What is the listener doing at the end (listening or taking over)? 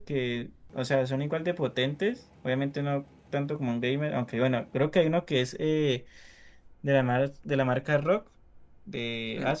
taking over